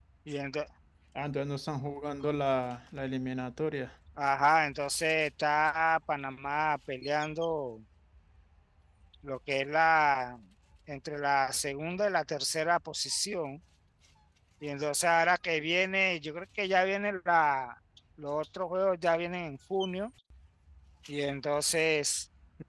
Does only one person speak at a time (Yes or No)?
Yes